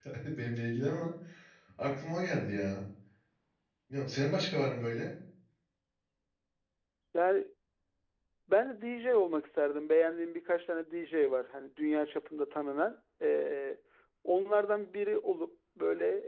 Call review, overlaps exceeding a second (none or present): none